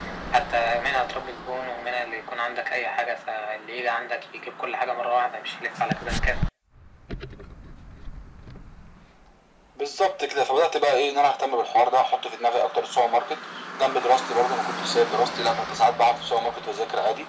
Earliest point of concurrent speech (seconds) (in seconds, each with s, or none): none